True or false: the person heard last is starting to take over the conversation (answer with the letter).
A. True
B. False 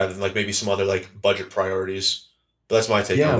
A